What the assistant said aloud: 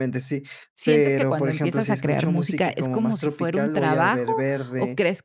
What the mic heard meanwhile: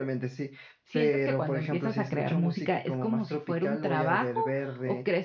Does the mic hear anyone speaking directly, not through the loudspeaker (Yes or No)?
No